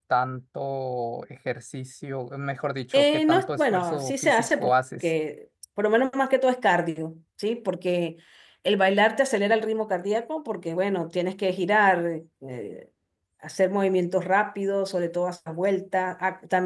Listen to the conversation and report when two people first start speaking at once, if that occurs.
3 s

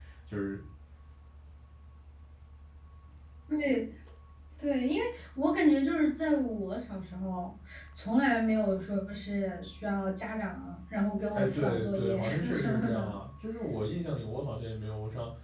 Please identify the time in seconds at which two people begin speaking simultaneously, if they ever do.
11 s

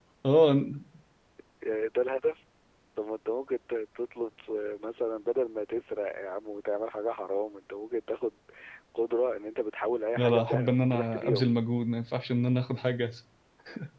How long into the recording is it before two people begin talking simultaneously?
10 s

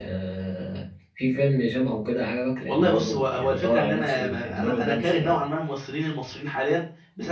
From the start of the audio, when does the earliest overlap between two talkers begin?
3 s

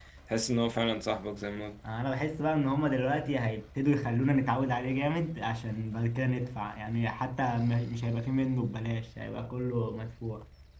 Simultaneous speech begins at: none

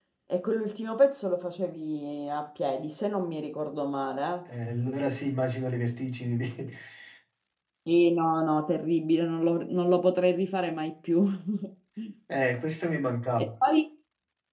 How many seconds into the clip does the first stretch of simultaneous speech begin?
none

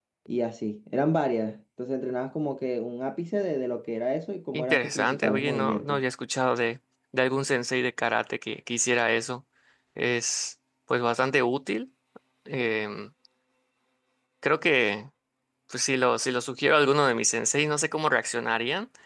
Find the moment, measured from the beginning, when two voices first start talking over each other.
5 s

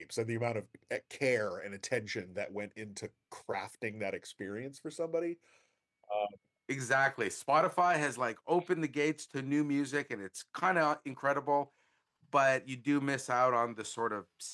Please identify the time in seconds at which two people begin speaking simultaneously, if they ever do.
none

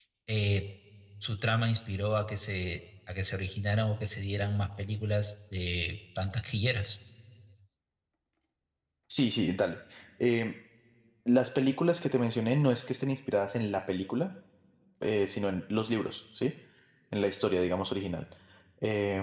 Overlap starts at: none

